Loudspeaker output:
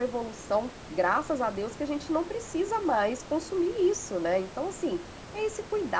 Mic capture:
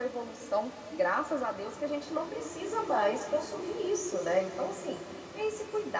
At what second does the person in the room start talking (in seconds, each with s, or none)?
none